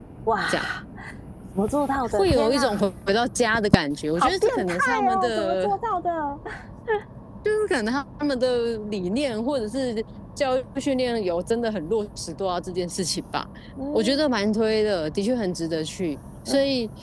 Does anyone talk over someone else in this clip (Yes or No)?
Yes